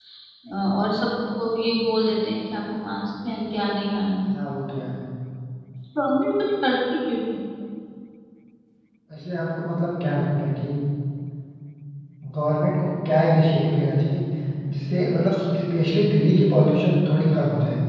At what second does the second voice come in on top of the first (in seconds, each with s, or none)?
none